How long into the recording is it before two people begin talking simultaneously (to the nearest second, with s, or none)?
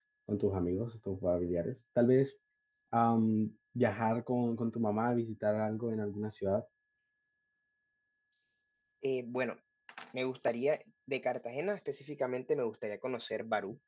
none